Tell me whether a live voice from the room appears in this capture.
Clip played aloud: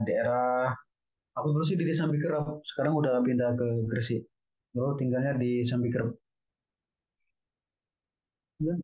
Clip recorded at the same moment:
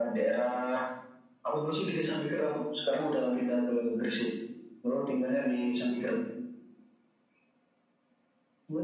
No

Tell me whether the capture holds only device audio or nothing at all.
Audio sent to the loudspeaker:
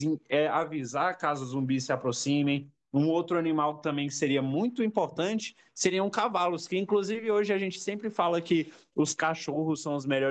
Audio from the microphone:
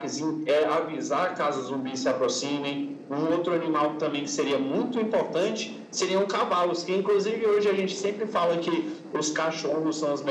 Yes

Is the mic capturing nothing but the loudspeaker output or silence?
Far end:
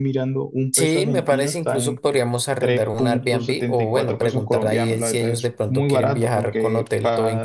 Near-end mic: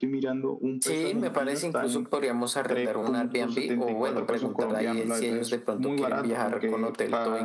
Yes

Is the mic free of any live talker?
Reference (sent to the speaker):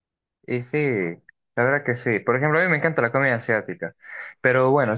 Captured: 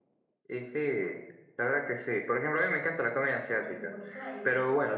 No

